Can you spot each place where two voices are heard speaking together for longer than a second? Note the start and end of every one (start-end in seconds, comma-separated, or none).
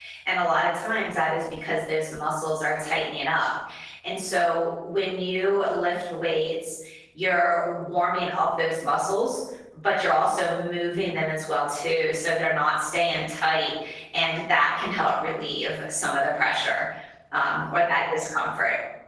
none